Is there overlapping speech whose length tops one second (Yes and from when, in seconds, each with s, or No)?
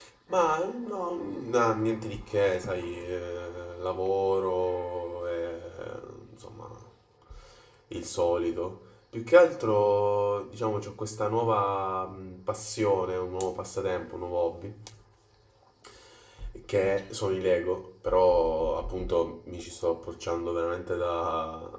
No